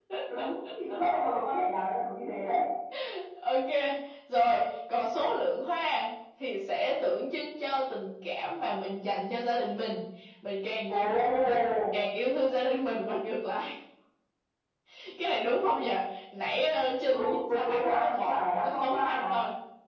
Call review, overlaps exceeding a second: present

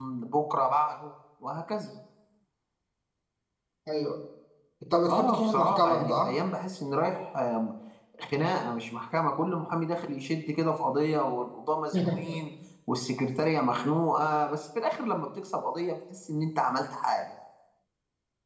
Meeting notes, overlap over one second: present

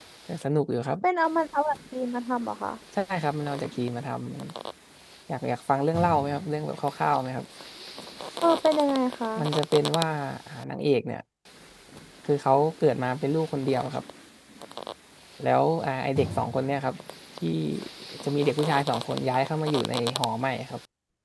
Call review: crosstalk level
none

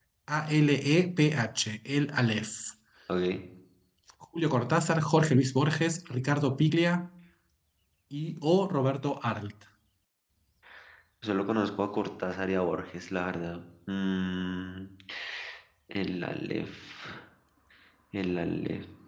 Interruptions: none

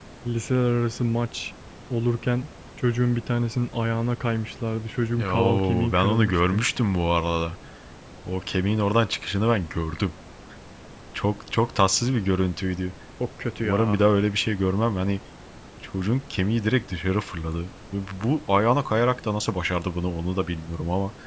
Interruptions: present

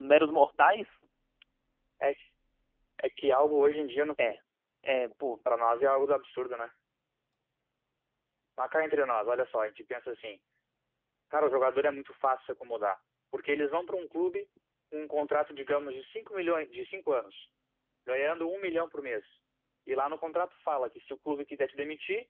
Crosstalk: none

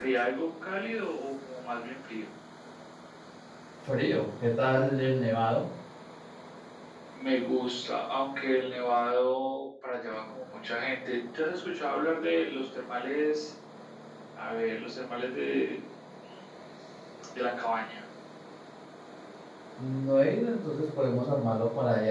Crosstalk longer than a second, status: none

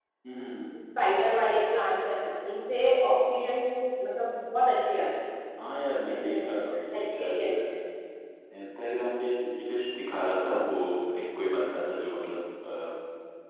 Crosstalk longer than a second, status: present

